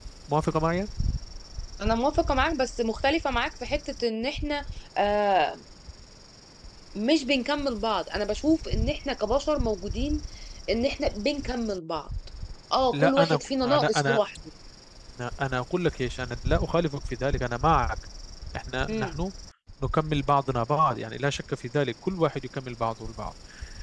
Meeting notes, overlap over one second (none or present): present